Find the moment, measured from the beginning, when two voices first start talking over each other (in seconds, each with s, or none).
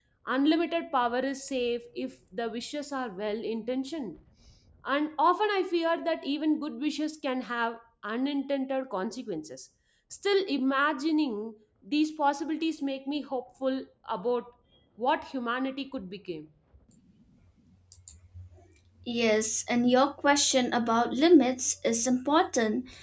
none